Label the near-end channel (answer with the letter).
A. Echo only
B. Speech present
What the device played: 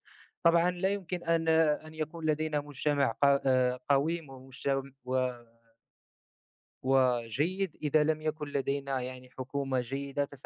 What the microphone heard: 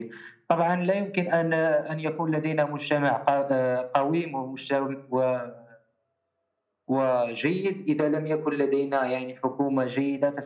A